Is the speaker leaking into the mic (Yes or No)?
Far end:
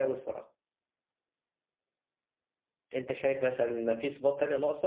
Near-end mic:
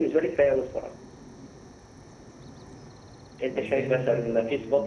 Yes